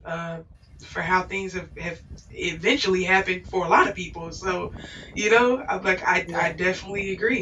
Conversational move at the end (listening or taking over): listening